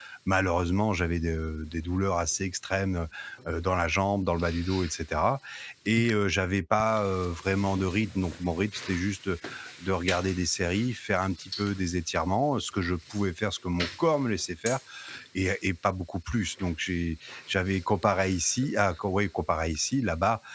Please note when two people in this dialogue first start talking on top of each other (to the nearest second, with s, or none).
none